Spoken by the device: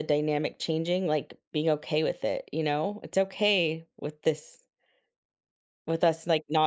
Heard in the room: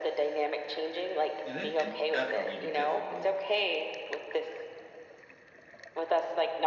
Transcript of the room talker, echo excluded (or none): and it can definitely be difficult